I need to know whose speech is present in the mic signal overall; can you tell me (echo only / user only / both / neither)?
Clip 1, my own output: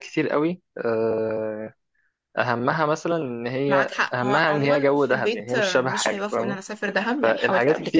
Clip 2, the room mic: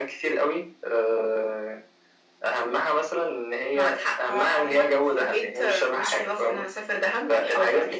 echo only